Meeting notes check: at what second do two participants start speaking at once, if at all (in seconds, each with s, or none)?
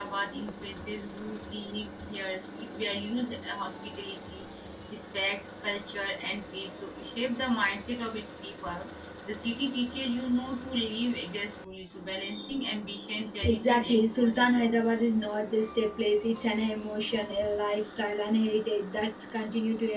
13.4 s